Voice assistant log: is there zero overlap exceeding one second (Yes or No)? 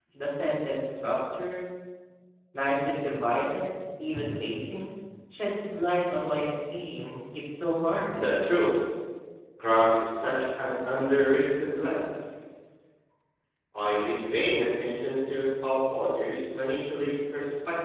Yes